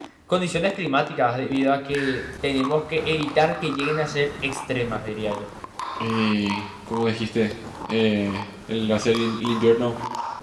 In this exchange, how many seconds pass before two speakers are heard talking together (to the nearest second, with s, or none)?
none